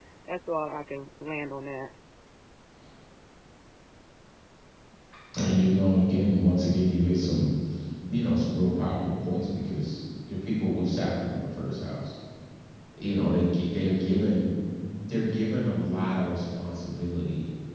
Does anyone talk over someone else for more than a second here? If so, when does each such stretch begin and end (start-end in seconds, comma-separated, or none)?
none